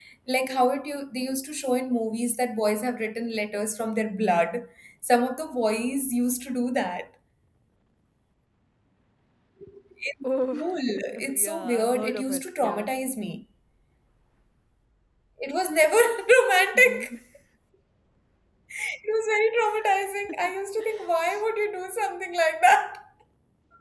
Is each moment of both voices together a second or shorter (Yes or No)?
No